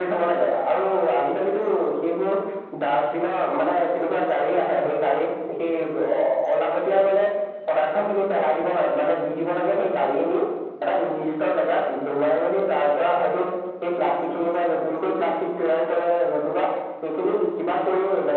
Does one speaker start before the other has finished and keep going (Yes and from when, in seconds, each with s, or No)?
No